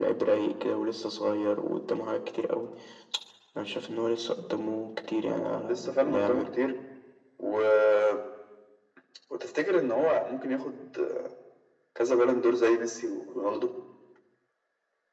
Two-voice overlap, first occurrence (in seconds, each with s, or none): 5.2 s